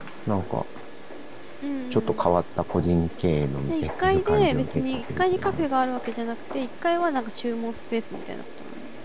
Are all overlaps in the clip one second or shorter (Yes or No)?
No